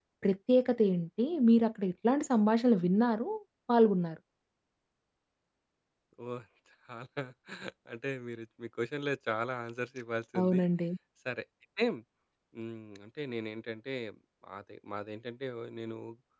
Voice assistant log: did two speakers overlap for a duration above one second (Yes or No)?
No